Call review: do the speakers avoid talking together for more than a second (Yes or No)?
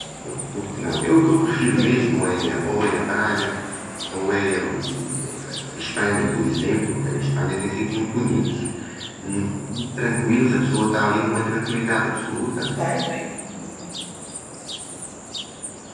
Yes